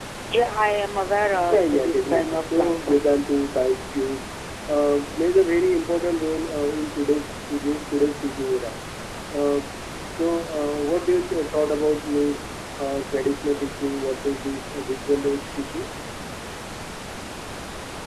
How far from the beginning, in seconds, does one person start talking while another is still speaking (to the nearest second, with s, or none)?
1 s